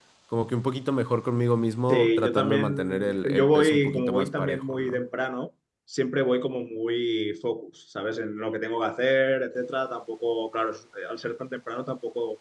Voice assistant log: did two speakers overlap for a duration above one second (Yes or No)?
Yes